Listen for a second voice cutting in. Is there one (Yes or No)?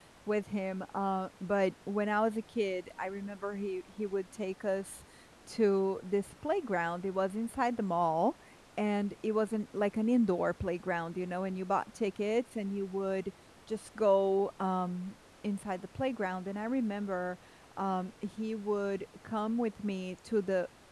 No